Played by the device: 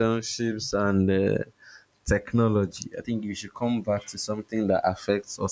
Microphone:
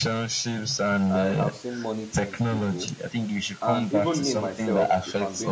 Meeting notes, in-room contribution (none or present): present